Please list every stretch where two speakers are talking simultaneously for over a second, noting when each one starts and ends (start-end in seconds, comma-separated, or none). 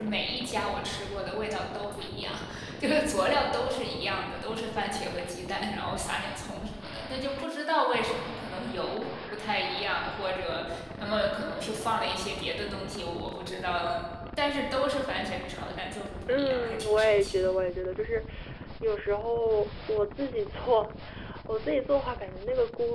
16.3-17.5